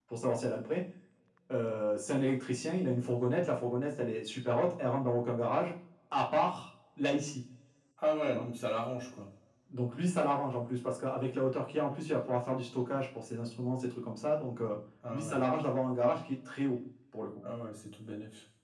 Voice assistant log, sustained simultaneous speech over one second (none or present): none